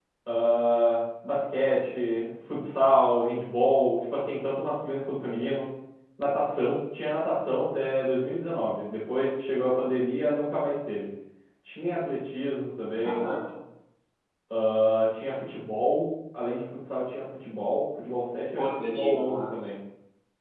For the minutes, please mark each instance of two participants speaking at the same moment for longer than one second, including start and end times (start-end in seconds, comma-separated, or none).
18.6-19.8